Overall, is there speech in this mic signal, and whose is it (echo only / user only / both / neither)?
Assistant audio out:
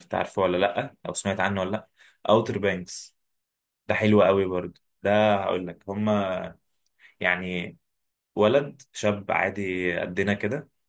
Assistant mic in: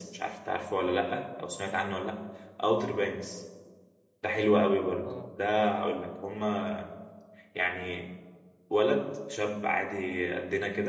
both